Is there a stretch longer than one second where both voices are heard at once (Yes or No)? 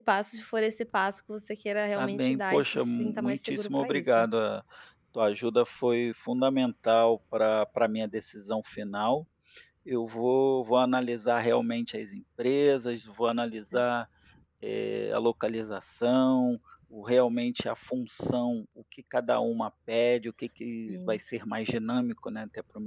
Yes